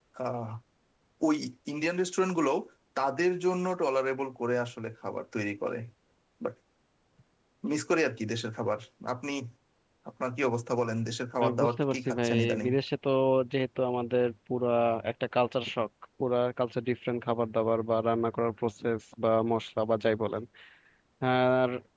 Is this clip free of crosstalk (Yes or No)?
No